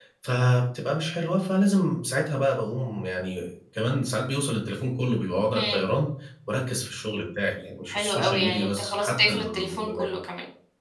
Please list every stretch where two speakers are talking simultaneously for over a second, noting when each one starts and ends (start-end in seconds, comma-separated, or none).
7.9-10.1